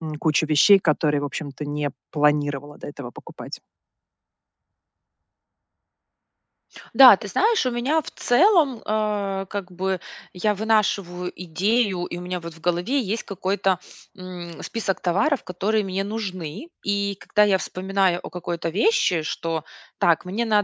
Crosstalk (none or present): none